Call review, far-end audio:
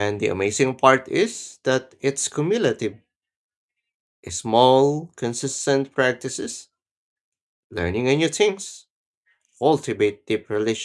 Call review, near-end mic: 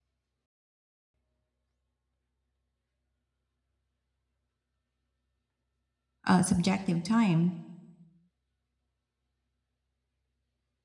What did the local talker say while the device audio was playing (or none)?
uh, subjective time.